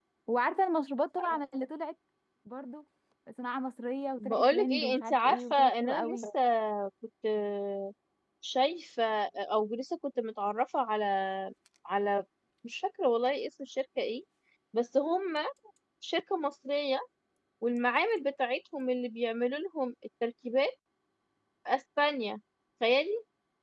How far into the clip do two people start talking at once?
4 s

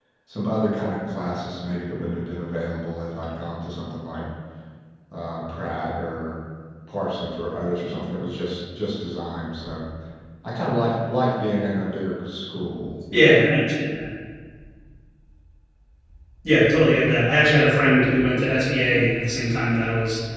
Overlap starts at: none

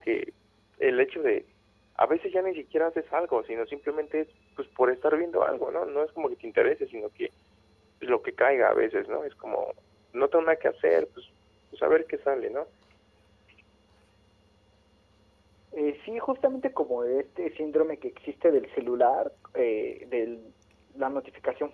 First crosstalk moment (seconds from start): none

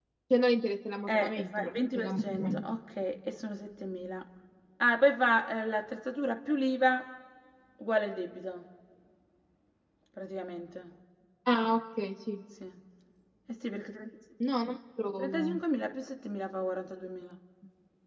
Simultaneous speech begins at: 1 s

